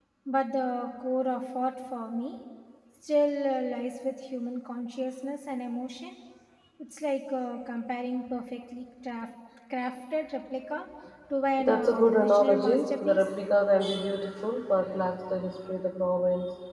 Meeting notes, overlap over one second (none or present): present